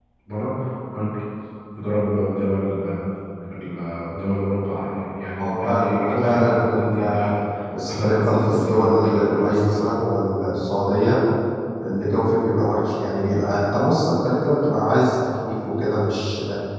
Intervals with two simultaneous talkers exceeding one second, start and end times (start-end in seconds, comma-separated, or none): 5.4-7.3, 7.9-9.7